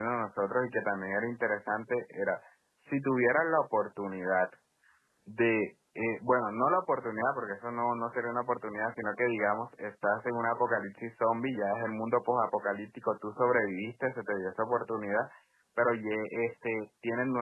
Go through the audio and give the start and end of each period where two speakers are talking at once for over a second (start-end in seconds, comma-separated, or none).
none